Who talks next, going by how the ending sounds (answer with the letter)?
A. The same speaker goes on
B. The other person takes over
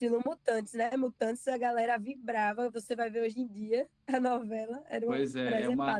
B